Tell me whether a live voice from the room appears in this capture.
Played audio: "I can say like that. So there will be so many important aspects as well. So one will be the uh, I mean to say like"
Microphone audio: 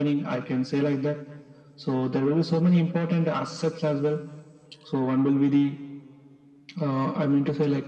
No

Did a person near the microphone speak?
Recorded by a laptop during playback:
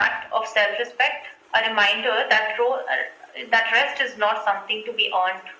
No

